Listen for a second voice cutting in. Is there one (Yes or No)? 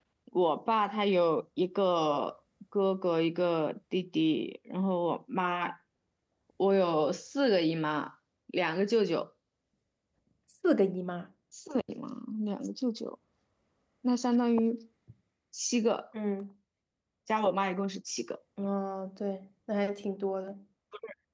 No